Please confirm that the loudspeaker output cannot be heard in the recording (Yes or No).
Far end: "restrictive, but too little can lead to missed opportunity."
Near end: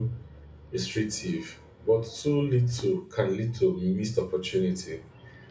No